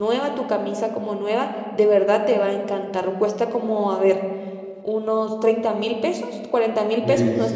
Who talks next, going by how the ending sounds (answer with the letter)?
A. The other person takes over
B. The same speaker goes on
A